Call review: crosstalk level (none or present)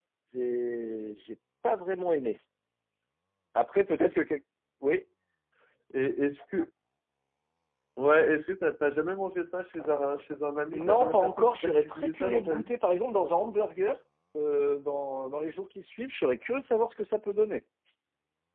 present